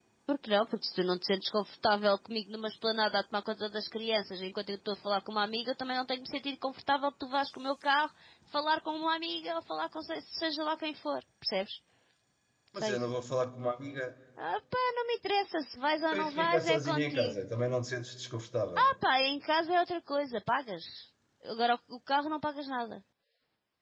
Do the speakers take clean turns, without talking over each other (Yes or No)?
No